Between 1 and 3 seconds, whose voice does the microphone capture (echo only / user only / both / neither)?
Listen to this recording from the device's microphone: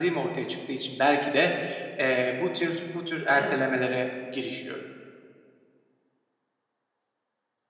echo only